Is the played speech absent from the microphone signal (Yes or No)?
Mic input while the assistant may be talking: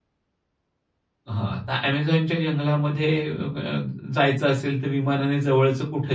Yes